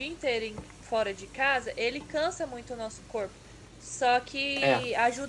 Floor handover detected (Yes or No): No